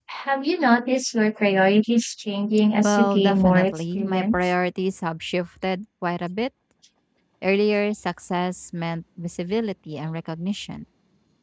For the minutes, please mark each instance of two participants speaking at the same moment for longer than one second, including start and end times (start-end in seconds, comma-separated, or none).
2.8-4.3